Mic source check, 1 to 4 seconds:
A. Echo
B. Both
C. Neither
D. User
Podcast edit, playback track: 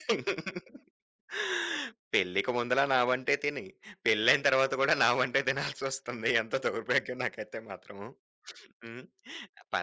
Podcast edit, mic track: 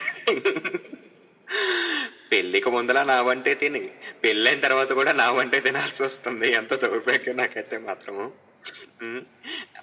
A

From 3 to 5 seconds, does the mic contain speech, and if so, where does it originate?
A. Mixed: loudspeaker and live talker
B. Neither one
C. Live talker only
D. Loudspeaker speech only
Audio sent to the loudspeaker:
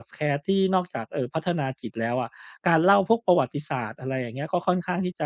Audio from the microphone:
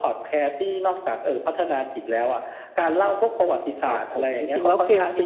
A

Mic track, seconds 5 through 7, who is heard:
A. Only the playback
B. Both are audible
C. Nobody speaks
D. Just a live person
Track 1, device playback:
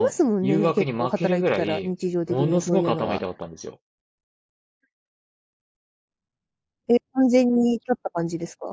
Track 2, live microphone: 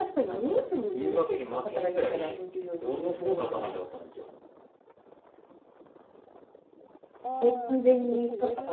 C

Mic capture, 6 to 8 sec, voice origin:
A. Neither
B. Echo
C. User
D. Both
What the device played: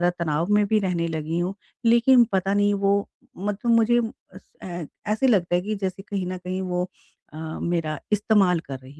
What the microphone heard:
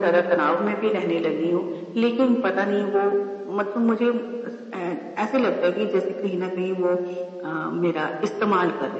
B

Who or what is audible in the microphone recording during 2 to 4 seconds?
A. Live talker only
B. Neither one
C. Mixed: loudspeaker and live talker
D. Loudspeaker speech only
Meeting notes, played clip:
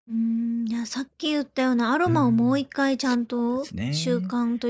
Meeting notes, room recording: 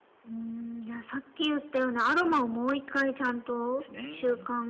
D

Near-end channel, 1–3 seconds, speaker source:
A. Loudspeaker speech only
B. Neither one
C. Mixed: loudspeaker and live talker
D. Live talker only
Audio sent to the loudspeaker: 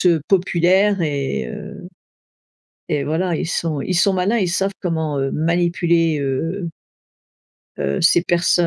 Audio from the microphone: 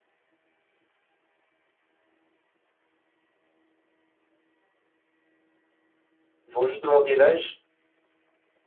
B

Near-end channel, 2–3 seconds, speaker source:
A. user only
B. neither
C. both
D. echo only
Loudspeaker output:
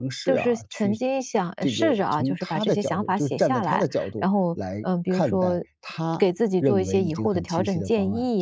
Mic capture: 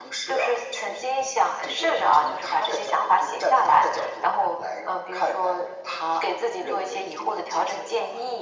D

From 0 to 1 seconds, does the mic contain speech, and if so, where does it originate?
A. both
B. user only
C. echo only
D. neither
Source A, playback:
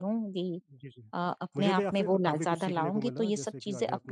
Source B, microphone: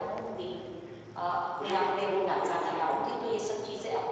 C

